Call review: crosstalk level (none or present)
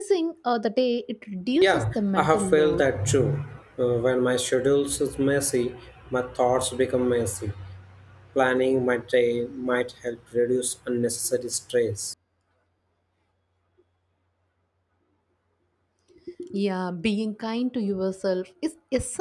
present